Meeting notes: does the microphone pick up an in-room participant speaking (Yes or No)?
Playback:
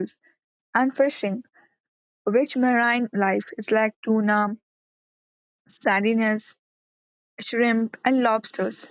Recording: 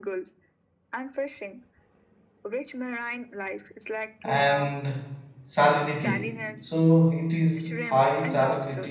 Yes